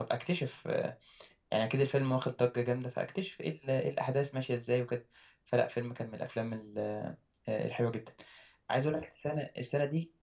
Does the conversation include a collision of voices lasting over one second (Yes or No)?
No